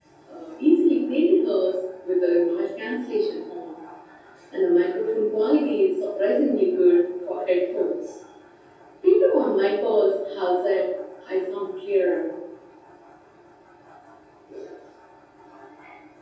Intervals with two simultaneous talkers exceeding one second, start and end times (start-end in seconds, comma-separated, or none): none